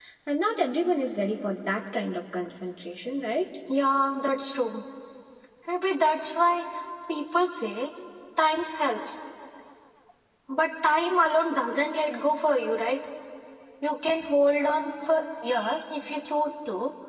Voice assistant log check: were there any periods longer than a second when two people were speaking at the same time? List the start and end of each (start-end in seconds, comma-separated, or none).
none